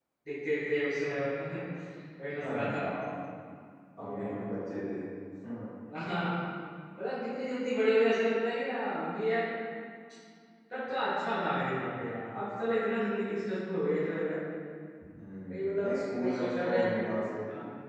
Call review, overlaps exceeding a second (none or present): present